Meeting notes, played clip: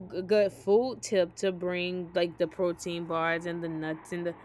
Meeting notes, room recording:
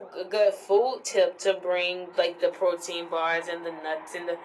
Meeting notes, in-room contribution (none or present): none